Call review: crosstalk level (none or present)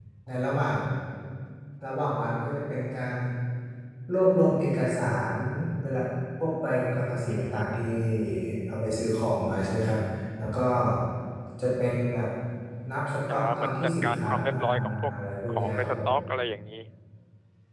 present